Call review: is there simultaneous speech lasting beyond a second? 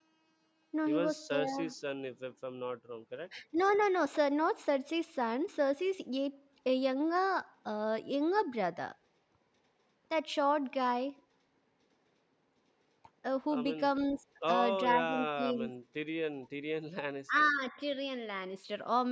Yes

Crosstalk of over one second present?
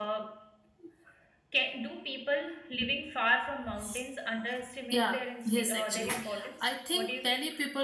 Yes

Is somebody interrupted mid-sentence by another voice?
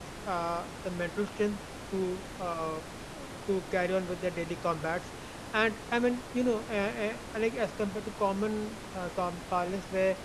No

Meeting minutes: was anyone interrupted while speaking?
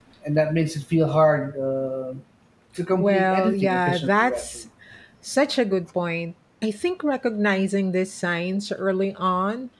Yes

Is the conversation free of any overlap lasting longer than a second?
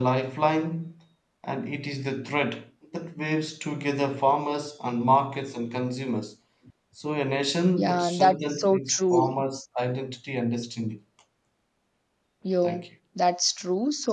No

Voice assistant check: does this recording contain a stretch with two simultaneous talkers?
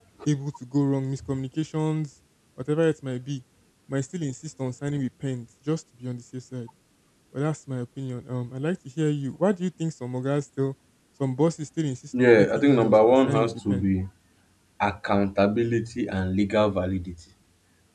Yes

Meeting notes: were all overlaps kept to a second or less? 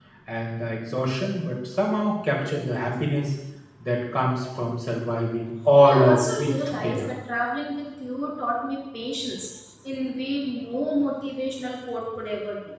No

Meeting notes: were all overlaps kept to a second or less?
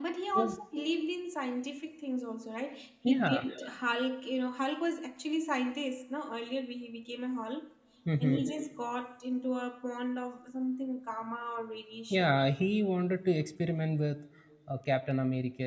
Yes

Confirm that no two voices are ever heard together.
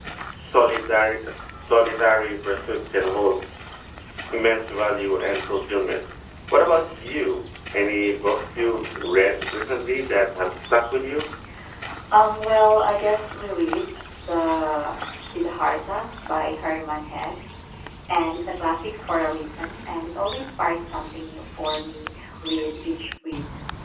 Yes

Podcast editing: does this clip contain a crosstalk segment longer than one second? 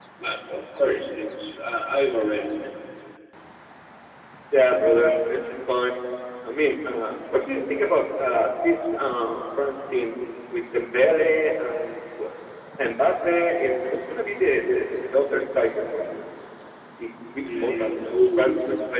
Yes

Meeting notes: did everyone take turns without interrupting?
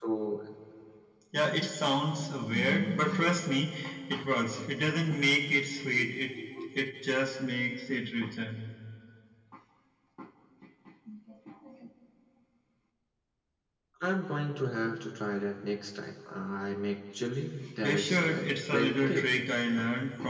No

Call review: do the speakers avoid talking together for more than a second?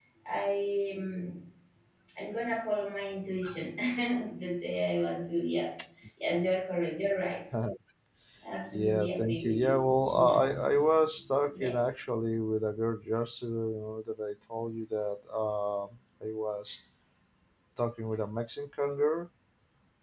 No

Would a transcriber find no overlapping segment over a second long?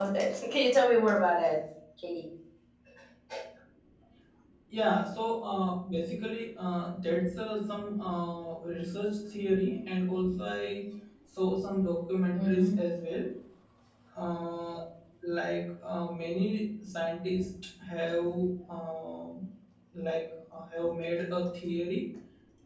Yes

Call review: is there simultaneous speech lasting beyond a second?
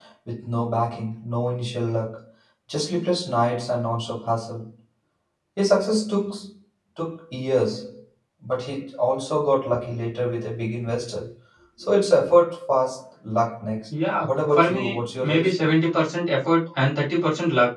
Yes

